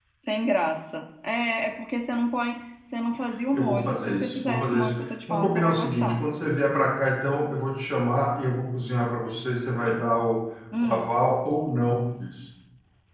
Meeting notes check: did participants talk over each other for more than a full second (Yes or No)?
Yes